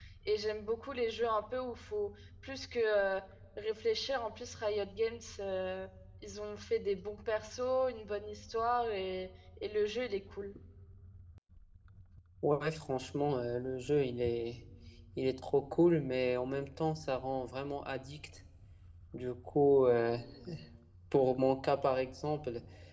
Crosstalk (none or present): none